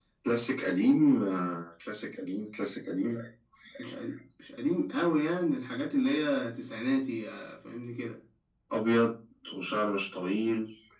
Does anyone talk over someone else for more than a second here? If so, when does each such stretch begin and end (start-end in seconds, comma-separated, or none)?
none